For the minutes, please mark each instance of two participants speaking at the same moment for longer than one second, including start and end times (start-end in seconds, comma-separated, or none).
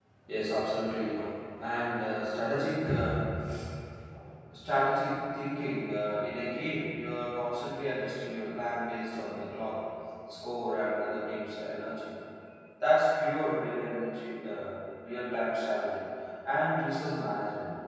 none